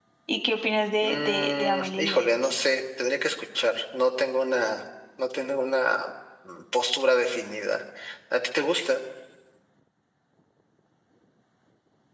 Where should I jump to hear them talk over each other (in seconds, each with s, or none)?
1.0 s